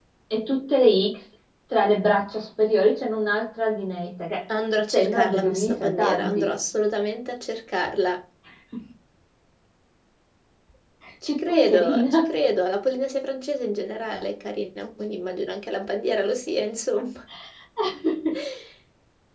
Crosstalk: present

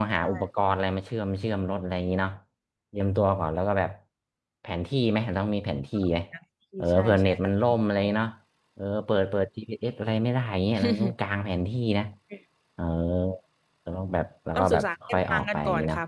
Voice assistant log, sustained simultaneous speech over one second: present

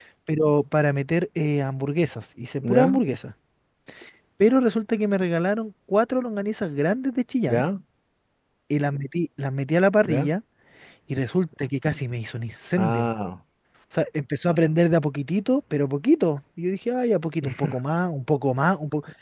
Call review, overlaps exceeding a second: none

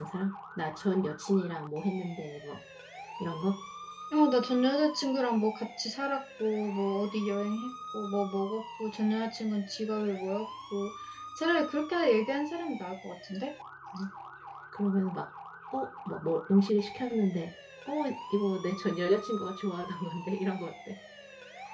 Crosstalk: none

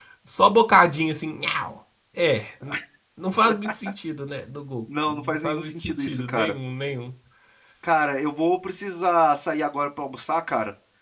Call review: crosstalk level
present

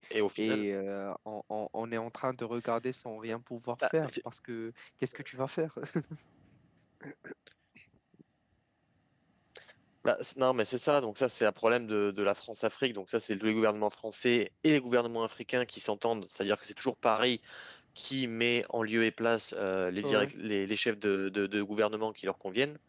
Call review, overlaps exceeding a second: none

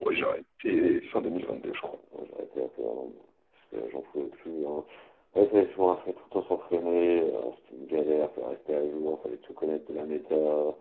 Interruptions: none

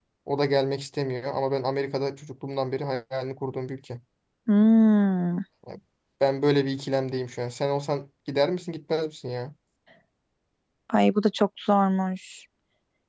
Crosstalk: none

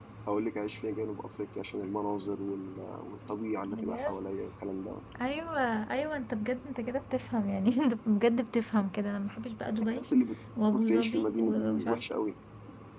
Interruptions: present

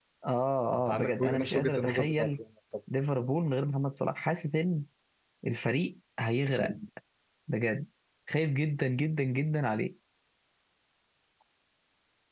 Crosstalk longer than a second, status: present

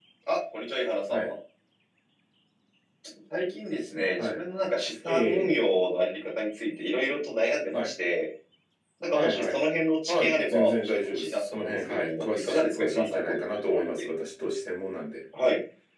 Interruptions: present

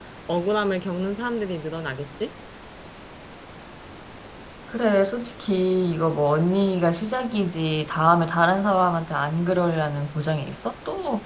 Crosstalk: none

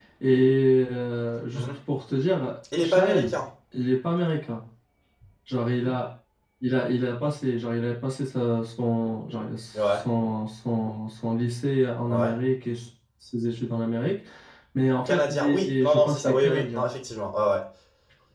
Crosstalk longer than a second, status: present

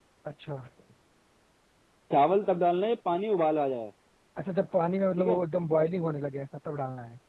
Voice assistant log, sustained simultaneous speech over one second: none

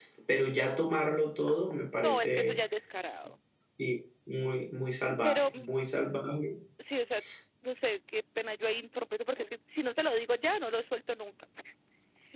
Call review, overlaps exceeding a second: none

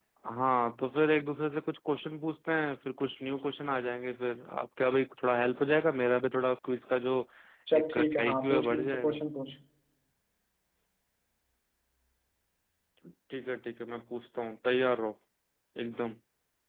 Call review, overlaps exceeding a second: present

